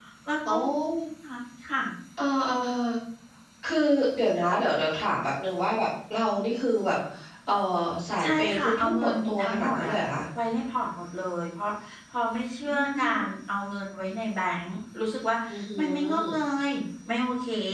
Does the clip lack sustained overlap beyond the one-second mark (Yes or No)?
No